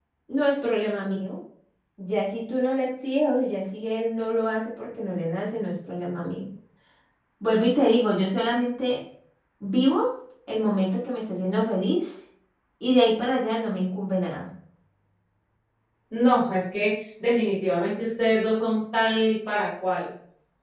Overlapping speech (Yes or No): No